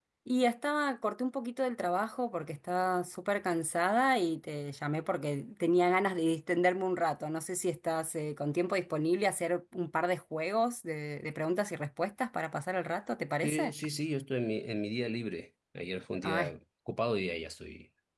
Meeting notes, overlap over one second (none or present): none